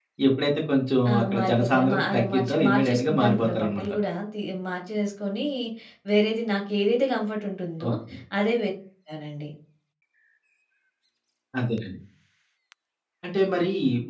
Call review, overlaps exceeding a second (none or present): present